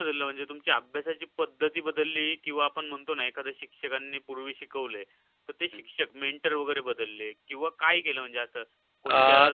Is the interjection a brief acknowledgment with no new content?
Yes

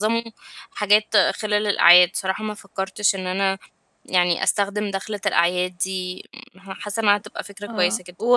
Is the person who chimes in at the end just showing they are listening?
No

